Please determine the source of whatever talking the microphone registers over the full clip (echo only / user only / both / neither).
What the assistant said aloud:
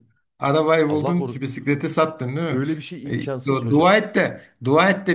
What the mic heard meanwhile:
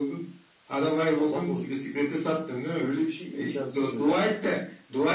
echo only